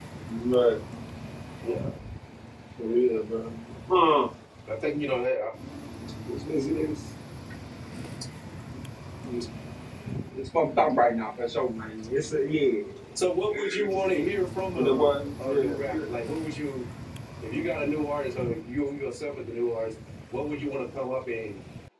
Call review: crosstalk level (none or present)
present